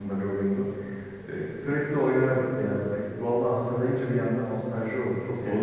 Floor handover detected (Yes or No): Yes